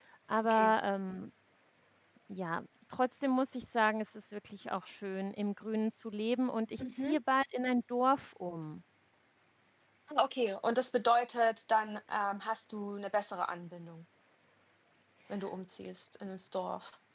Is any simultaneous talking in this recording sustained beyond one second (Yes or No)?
No